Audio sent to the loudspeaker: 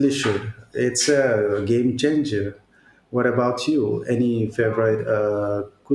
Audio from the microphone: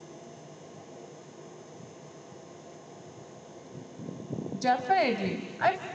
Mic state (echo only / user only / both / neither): user only